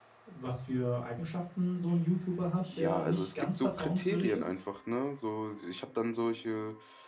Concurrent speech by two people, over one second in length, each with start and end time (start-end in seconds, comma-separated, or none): 2.7-4.5